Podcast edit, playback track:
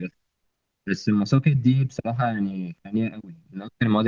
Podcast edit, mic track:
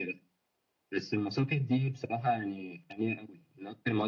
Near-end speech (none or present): none